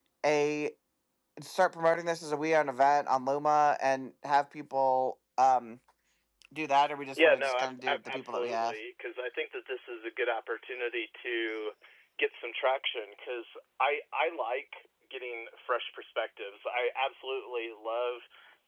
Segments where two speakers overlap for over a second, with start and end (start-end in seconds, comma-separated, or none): 7.2-8.7